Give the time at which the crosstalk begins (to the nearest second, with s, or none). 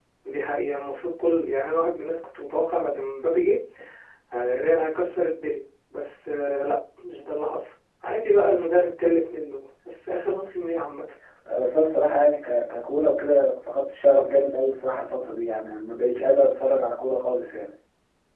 none